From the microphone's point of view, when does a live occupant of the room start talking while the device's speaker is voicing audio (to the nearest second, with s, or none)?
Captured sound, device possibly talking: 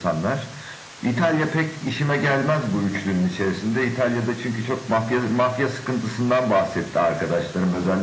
none